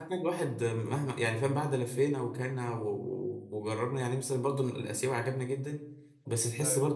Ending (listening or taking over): listening